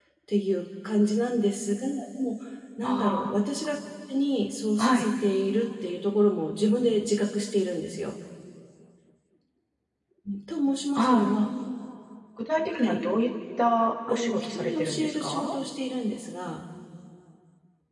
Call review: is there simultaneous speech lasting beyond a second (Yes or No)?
Yes